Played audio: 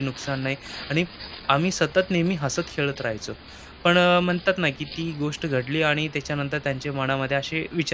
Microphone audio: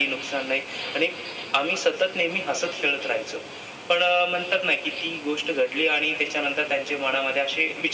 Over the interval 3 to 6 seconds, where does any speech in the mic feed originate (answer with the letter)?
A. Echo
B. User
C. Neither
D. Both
A